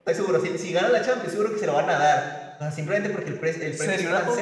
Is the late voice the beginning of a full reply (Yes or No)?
Yes